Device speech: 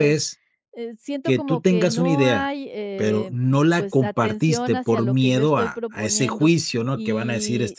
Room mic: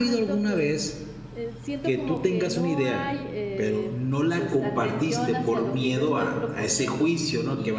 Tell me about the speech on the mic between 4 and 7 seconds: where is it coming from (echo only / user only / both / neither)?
echo only